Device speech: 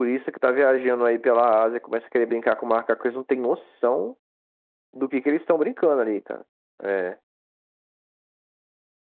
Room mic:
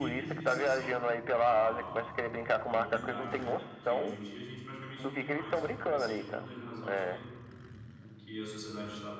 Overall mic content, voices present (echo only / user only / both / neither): both